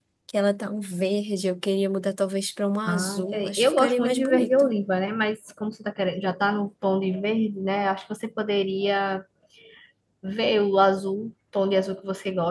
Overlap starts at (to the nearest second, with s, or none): 3 s